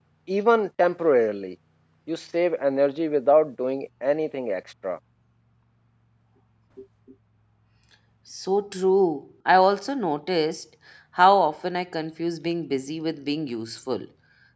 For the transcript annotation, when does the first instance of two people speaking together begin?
none

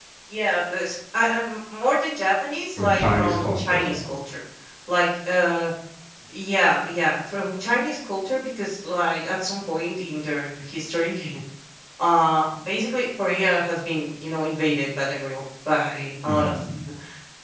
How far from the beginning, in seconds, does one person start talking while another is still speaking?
2.8 s

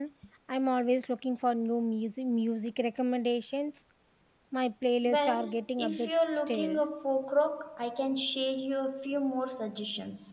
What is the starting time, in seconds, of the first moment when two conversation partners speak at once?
5.0 s

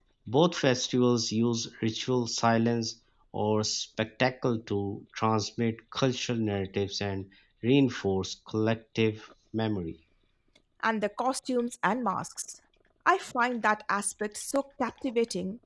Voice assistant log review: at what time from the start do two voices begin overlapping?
none

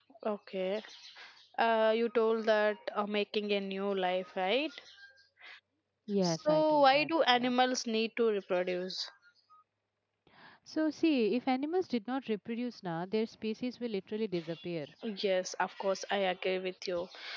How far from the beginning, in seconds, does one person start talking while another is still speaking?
6.2 s

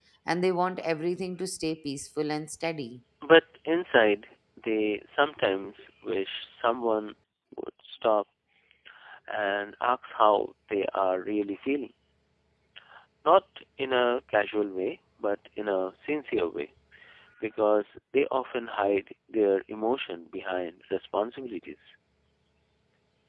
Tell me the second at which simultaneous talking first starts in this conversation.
none

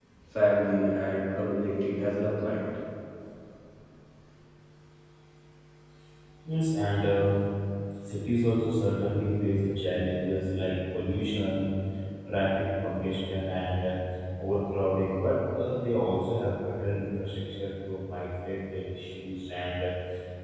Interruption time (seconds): none

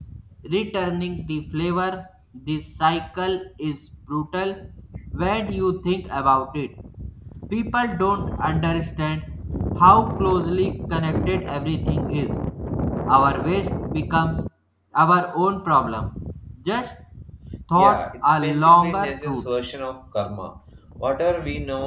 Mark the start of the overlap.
17.8 s

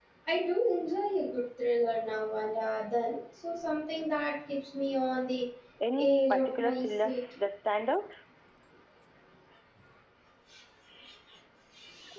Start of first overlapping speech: 6.0 s

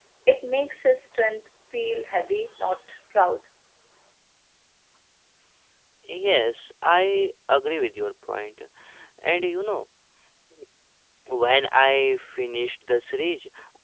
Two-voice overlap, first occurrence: none

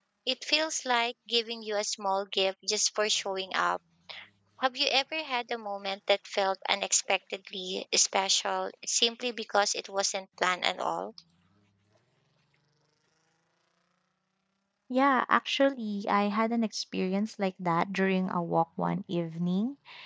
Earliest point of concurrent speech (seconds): none

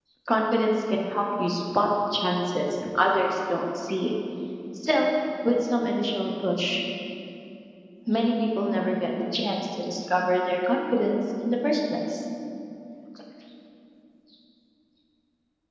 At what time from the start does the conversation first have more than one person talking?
none

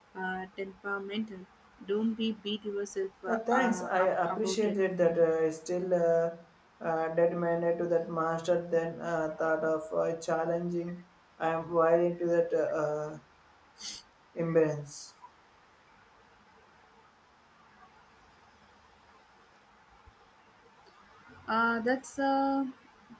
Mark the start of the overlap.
3.3 s

